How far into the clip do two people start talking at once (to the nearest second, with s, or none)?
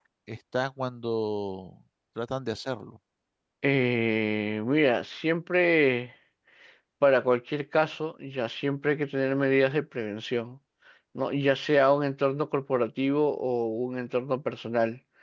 none